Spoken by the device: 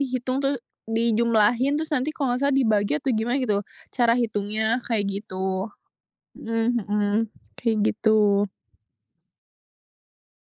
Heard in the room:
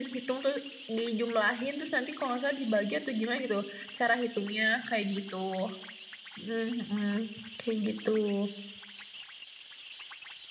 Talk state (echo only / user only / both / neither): echo only